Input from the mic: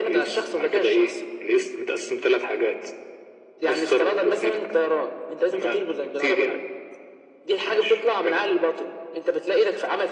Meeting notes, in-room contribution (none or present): none